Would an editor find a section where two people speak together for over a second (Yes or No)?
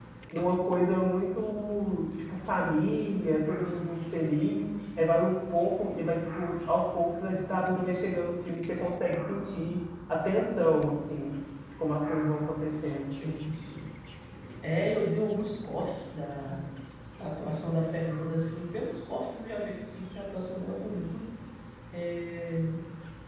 No